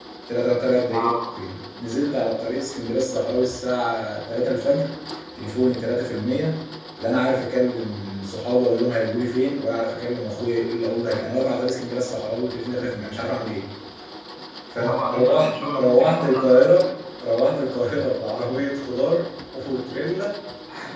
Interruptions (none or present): present